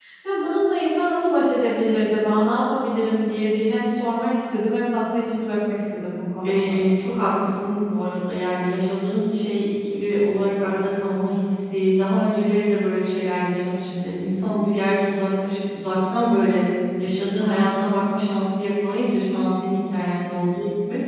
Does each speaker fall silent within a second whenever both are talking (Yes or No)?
Yes